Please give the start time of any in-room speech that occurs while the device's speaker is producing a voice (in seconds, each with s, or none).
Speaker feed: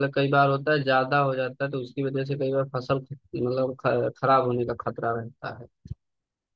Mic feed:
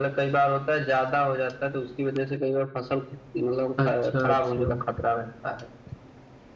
3.8 s